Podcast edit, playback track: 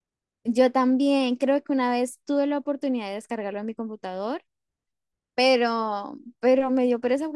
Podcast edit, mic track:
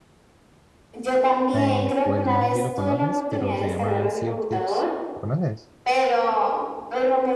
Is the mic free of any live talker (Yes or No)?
No